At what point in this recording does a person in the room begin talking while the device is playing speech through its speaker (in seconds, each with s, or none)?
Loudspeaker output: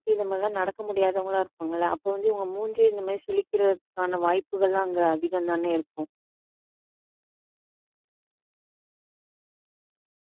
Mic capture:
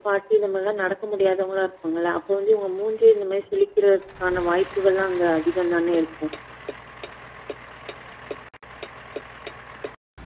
none